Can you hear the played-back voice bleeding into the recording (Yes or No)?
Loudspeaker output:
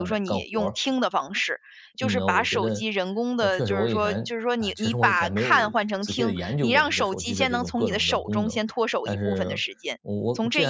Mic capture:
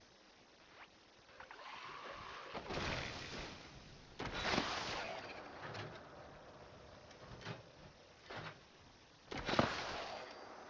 No